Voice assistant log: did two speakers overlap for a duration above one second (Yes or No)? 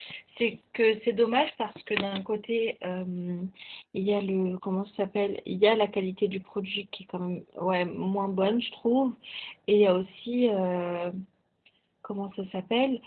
No